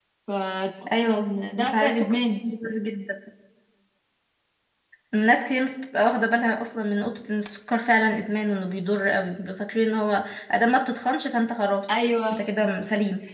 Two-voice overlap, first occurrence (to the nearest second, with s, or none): 1 s